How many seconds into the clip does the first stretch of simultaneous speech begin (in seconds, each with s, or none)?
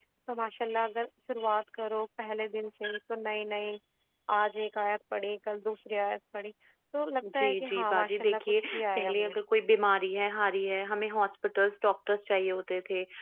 7.4 s